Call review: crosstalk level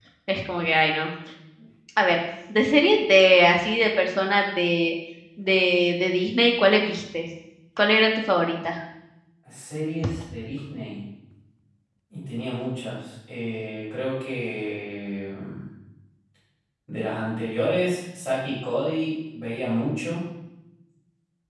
none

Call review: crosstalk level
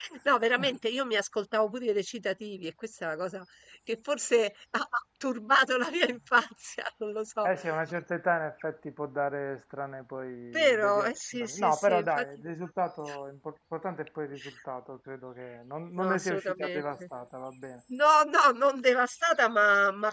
present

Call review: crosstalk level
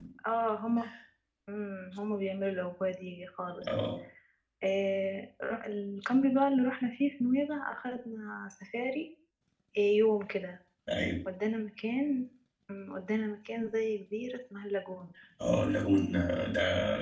none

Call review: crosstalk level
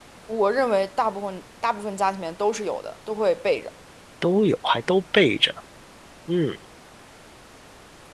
none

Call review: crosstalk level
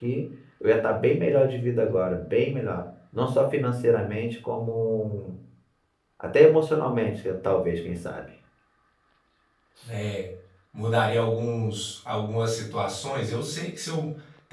none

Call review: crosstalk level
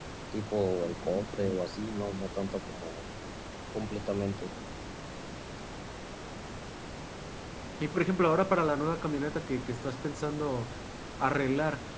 none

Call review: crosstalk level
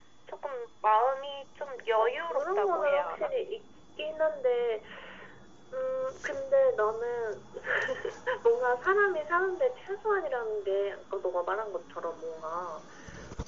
present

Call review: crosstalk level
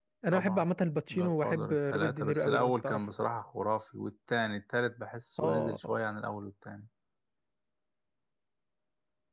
present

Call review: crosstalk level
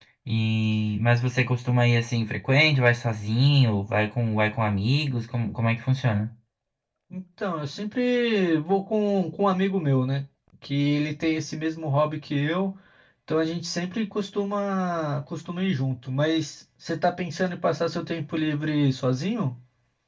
none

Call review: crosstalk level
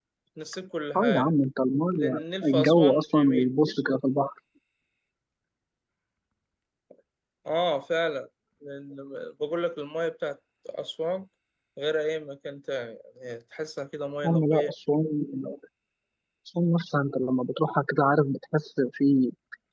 present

